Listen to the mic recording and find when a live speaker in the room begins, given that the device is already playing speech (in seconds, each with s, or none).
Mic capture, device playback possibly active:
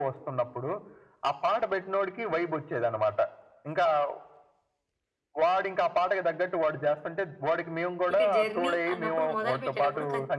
8.1 s